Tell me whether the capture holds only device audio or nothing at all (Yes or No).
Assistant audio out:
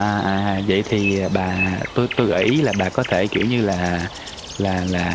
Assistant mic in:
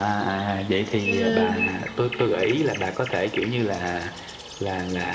No